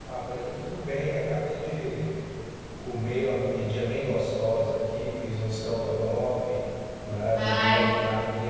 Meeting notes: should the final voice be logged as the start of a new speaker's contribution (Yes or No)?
No